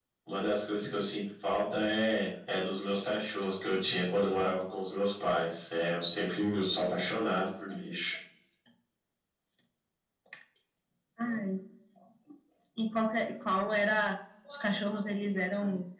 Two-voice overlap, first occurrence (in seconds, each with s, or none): none